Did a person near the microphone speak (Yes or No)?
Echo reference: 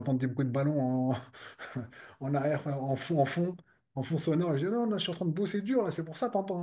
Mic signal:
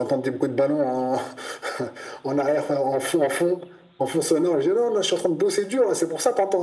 No